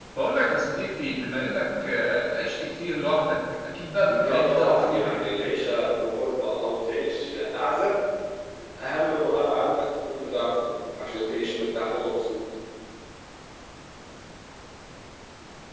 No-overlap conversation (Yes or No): No